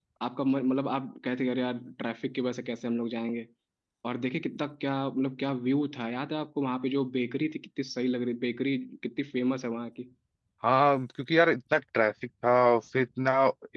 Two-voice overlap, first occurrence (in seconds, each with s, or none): none